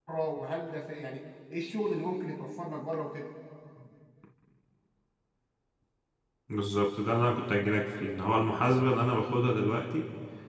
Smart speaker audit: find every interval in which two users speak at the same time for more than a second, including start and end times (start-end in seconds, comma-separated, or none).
none